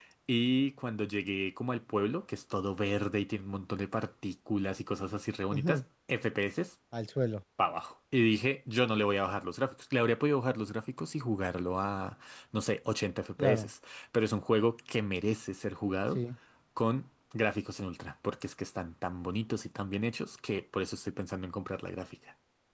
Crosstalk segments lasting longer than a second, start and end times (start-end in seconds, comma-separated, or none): none